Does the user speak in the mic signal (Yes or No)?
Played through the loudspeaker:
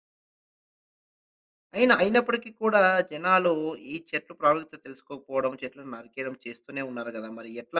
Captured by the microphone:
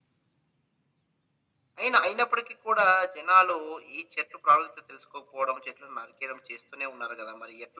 No